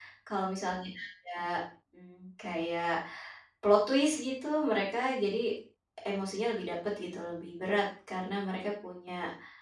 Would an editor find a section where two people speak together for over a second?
No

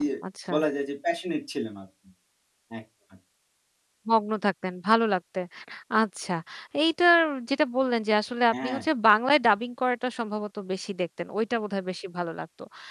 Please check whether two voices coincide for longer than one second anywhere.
No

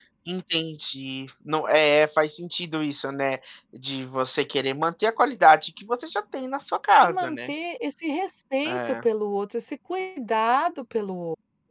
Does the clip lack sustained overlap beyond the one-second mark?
Yes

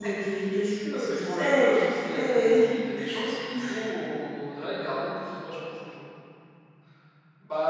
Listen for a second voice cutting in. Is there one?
Yes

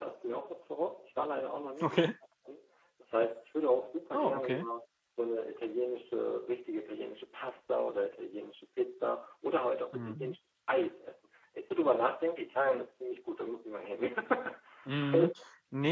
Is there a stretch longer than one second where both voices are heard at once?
No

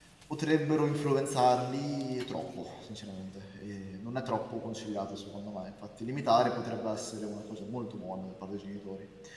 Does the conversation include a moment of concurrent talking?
No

